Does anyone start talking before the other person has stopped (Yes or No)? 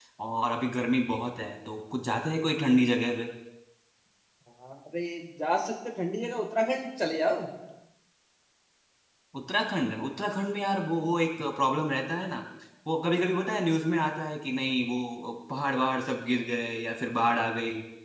No